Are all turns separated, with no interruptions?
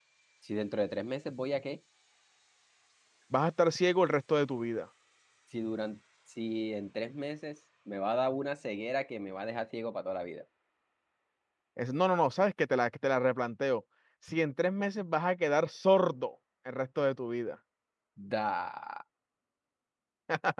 Yes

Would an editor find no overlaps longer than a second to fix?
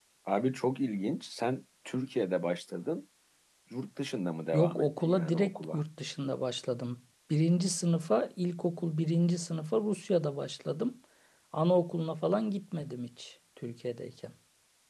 No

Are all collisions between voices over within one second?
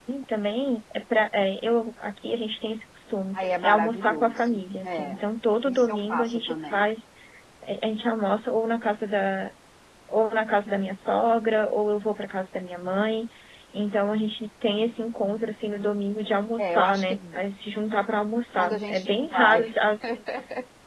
No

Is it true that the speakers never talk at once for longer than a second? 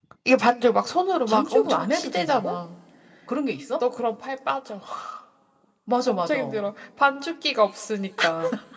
No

